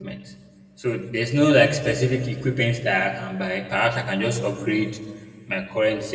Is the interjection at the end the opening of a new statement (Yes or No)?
No